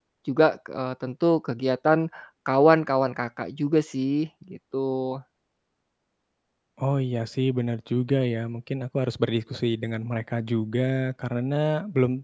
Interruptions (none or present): none